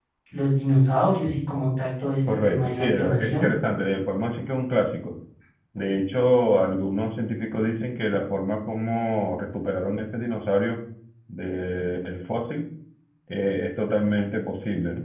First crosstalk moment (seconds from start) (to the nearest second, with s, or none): 2 s